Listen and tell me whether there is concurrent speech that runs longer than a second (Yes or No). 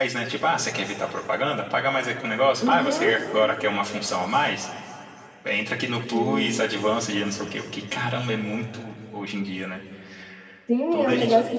No